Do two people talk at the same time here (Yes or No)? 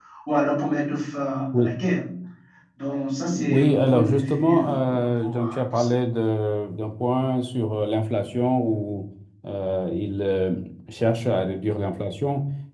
Yes